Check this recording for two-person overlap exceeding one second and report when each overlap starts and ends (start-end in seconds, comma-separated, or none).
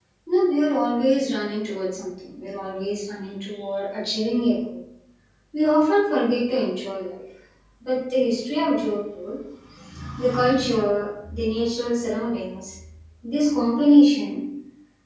none